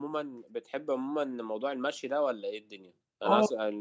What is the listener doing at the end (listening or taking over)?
listening